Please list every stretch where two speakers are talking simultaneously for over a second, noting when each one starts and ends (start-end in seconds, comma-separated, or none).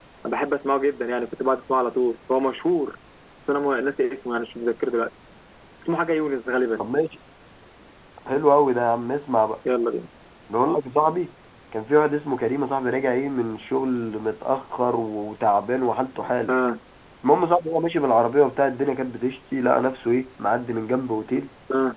none